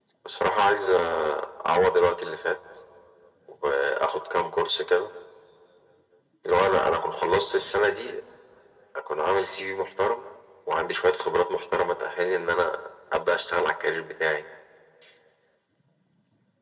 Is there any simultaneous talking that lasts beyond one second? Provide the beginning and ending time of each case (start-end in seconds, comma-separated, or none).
none